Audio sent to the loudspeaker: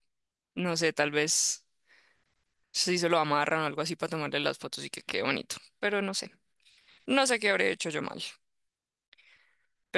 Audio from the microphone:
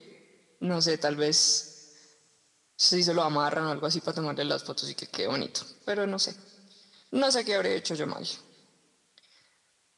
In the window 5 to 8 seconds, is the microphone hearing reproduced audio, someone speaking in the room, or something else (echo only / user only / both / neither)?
echo only